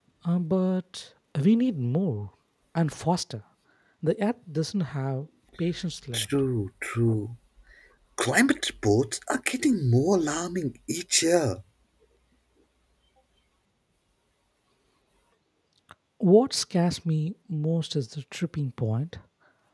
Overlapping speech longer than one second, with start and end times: none

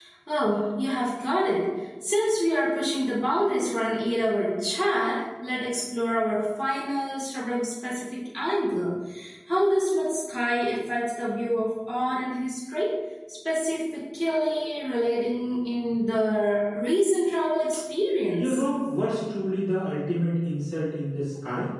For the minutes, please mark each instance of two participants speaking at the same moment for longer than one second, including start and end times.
none

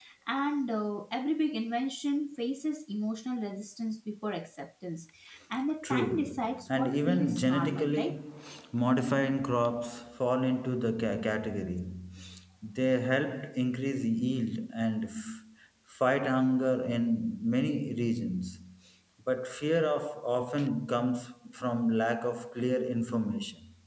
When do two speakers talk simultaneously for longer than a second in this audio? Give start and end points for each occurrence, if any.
5.8-8.0

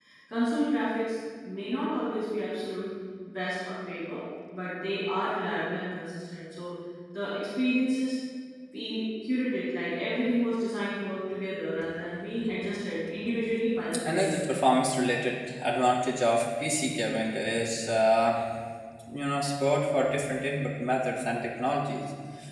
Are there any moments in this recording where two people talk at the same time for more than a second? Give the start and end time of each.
none

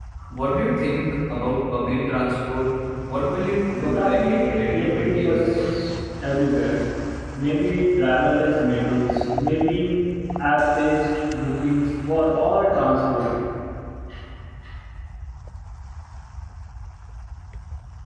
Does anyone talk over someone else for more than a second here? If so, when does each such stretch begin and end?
3.8-5.6

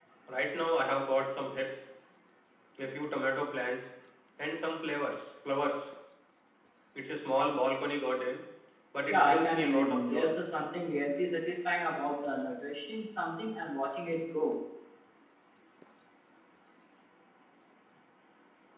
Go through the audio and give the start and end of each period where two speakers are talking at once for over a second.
9.1-10.3

